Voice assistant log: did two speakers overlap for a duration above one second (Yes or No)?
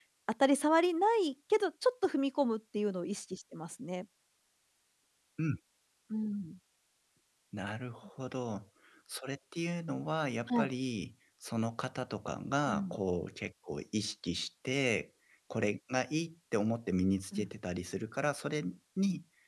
No